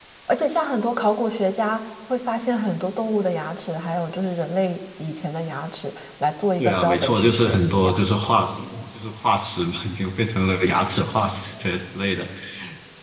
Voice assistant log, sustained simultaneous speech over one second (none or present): present